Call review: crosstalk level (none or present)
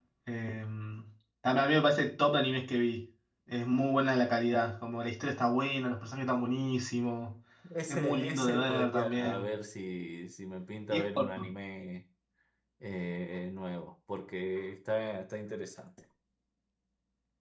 present